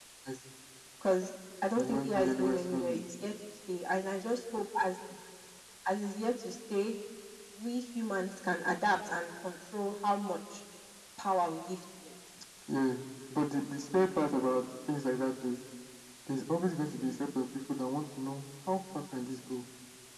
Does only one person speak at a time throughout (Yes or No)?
No